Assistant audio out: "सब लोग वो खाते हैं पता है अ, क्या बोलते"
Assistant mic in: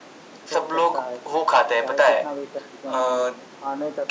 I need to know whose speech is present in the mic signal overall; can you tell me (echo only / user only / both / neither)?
both